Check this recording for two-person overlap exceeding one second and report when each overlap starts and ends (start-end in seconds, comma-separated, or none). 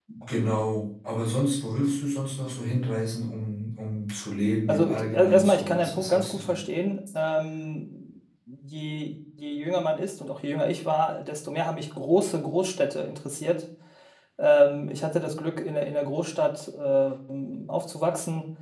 4.7-6.6